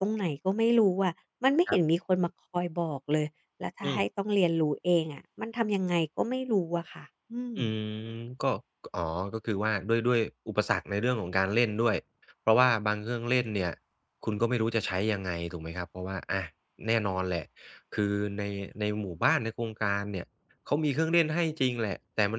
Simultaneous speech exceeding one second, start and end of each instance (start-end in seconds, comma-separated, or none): none